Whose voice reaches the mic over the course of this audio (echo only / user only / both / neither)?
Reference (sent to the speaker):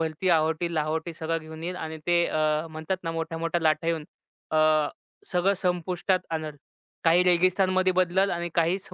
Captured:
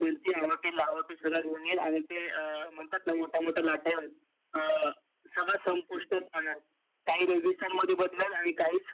echo only